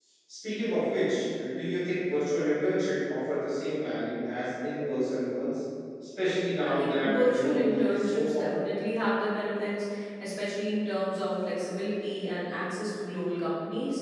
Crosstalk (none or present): present